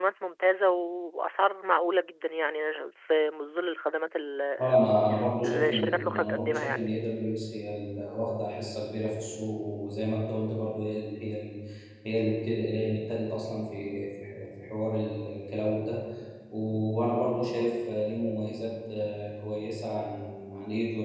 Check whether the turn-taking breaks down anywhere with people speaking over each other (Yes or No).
Yes